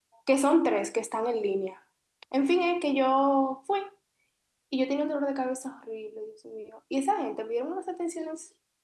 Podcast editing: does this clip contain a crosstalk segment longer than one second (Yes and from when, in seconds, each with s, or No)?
No